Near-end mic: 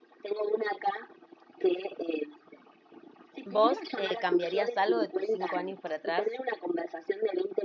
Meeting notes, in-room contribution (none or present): present